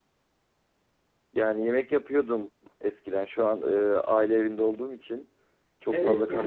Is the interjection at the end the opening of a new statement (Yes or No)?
Yes